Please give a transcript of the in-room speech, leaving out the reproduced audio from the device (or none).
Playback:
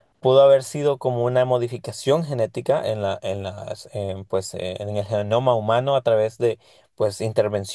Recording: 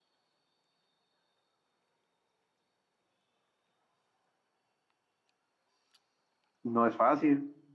no es fácil